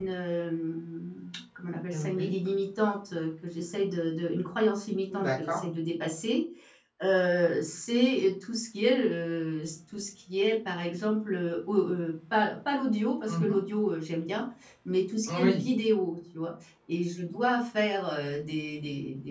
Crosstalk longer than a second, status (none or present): none